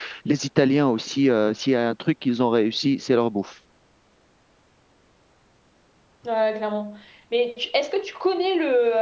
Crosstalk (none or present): none